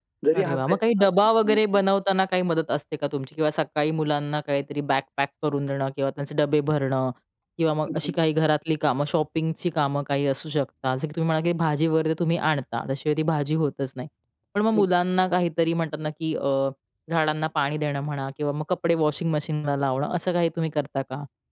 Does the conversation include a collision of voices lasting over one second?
Yes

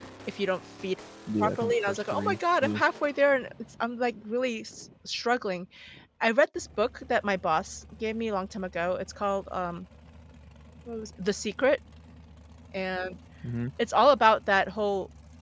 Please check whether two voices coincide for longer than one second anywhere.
Yes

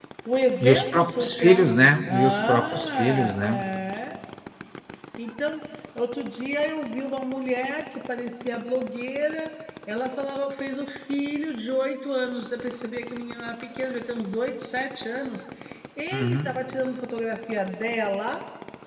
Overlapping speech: Yes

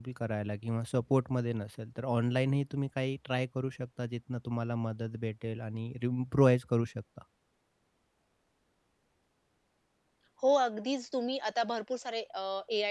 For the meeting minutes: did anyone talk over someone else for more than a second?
No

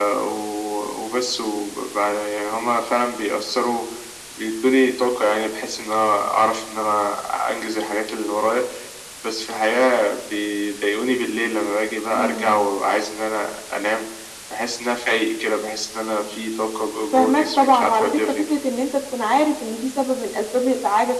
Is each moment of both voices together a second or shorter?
No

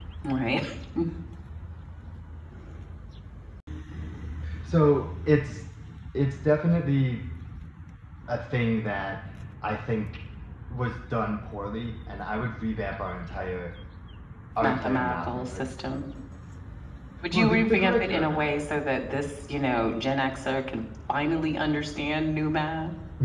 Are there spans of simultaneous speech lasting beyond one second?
Yes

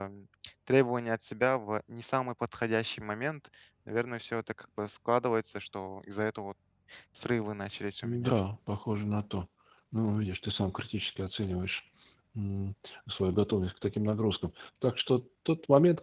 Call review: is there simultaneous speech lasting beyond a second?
No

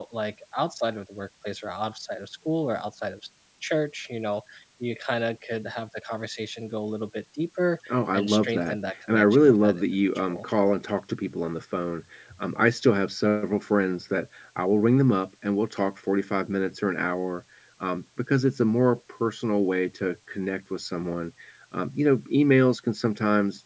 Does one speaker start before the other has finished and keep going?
Yes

